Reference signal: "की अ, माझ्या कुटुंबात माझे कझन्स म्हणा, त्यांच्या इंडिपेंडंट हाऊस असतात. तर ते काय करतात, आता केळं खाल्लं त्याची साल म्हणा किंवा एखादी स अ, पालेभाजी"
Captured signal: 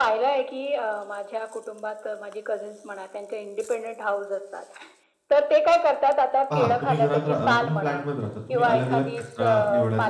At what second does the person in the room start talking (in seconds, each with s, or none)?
6.5 s